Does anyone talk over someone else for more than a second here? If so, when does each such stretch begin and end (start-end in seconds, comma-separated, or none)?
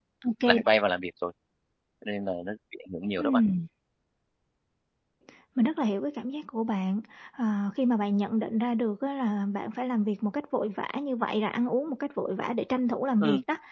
none